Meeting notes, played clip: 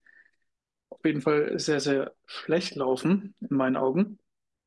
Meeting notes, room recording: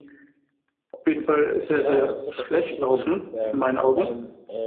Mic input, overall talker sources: both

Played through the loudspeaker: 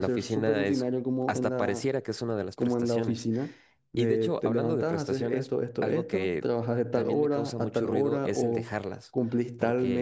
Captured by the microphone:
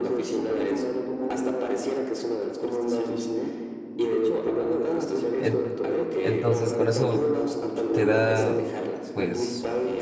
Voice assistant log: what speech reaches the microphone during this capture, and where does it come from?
both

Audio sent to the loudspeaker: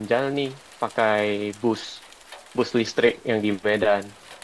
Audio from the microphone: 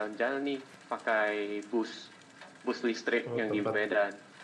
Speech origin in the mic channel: both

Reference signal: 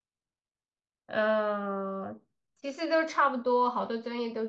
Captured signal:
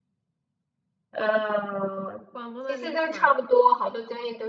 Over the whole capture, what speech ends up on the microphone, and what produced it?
both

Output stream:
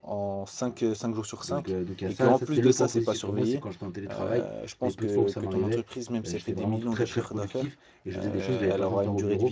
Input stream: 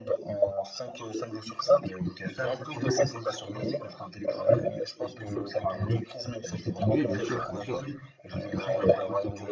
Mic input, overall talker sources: both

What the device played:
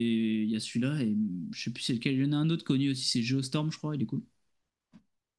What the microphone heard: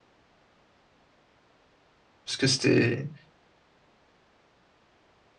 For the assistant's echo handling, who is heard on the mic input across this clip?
user only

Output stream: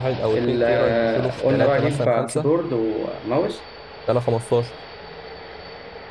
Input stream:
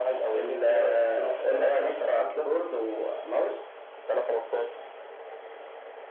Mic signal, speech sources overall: echo only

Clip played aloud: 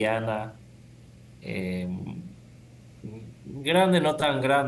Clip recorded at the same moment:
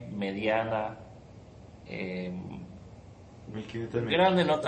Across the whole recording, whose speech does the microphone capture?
both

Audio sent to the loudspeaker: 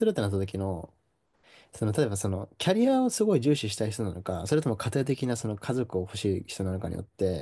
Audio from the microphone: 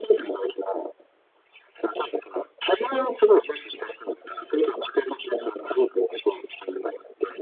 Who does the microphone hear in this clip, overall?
echo only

